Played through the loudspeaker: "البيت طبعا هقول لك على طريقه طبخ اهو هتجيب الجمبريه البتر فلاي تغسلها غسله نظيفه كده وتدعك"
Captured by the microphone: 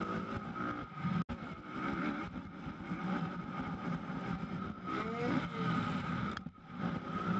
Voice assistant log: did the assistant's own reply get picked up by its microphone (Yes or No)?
No